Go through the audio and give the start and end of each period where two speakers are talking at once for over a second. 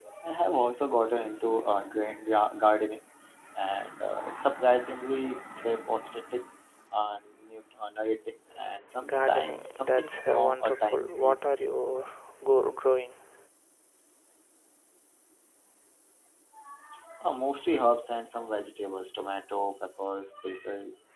9.0-11.5

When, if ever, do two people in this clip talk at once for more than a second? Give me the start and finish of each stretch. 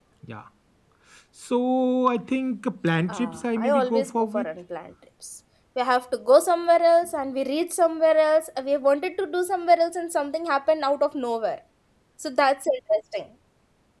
3.1-4.5

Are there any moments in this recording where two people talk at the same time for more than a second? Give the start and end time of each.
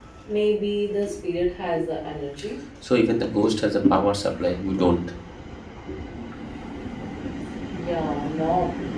none

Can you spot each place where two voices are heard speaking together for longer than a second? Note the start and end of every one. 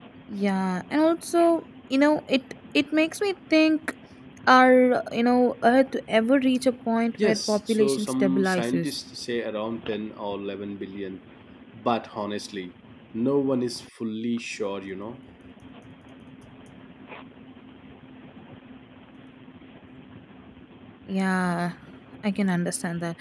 7.2-9.0

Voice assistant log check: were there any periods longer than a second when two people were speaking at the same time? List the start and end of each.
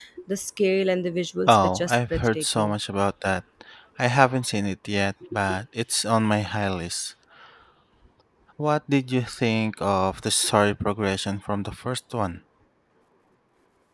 1.5-2.7

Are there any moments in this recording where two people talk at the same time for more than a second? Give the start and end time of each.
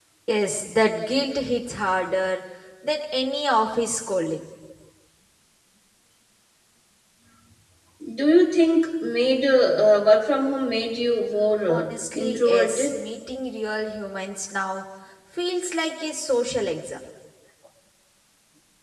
11.7-13.0

